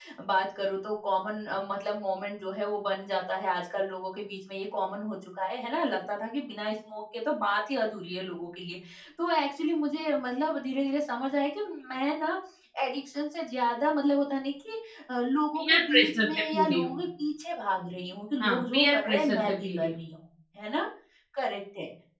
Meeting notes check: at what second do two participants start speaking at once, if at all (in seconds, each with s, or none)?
15.6 s